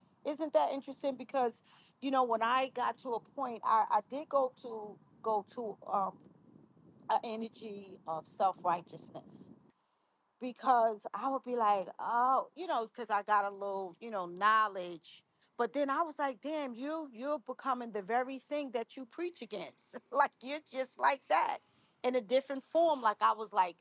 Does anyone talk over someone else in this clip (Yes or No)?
No